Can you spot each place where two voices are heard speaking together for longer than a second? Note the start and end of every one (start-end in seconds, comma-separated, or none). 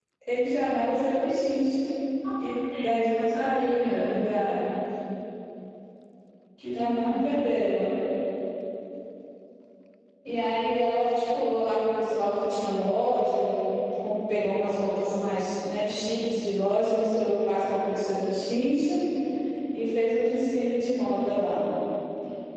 2.7-4.0